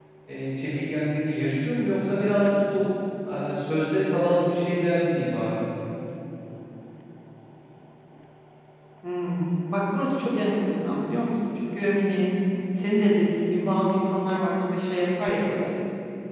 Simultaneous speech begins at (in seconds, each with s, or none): none